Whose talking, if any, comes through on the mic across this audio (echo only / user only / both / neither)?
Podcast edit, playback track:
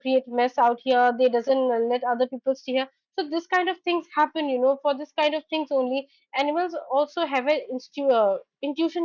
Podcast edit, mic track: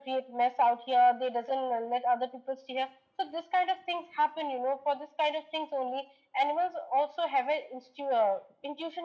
echo only